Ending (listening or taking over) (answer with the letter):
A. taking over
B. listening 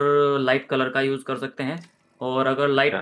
B